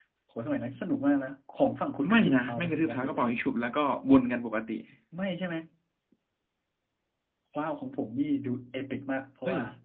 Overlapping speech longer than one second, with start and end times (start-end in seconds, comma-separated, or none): 2.1-3.3